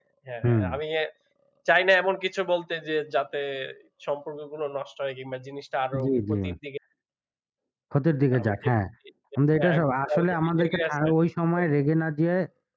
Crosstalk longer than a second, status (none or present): present